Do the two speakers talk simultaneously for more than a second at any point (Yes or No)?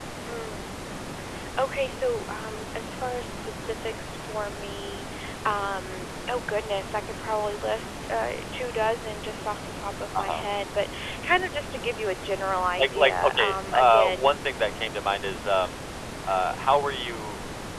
Yes